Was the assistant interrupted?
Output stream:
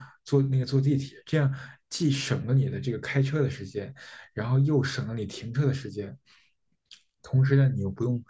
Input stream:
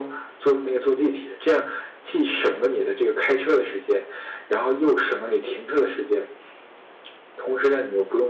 No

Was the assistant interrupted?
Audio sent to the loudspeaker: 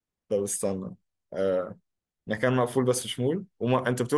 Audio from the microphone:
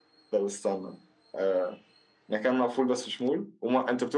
No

